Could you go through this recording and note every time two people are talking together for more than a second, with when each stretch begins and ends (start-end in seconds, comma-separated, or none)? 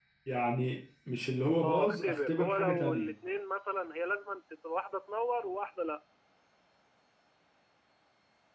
1.6-3.1